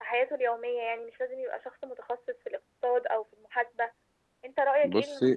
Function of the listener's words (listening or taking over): listening